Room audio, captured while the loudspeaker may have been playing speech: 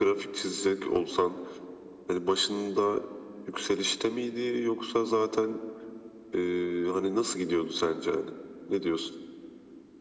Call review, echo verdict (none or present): present